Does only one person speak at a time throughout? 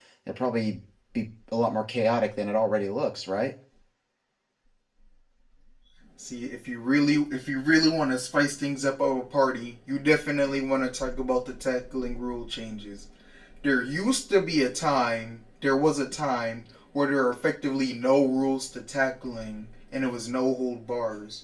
Yes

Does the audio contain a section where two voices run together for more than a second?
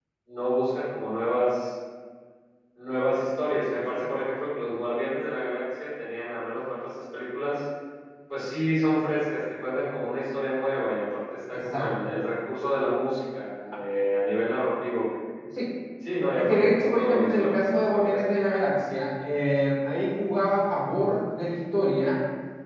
Yes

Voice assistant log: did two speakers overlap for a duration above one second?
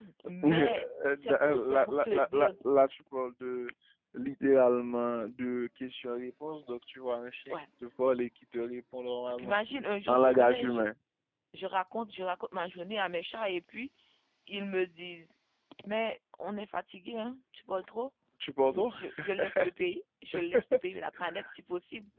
Yes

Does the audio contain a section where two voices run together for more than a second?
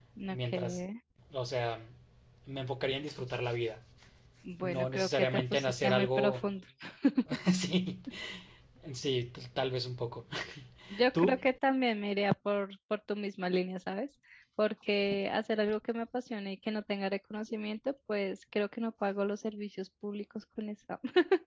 Yes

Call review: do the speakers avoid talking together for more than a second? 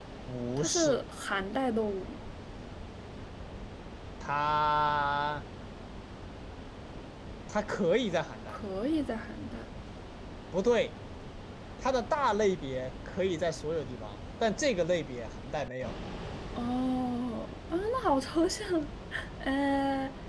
Yes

